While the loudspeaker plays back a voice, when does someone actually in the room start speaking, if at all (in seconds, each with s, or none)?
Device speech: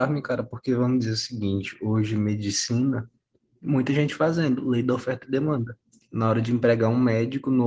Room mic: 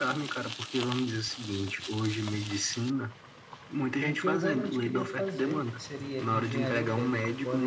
4.0 s